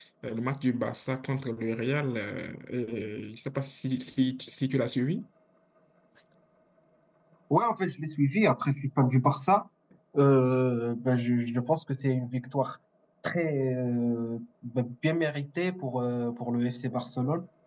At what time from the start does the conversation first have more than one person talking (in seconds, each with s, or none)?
none